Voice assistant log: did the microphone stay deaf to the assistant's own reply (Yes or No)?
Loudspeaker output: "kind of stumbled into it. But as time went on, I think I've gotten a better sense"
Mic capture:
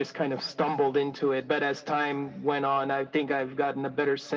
No